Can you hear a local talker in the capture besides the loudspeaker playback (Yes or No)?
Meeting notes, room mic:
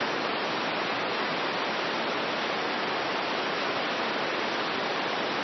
No